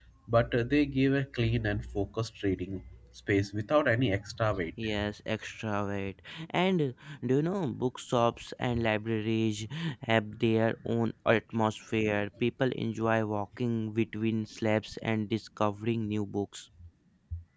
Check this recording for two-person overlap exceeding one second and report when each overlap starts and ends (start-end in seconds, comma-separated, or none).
none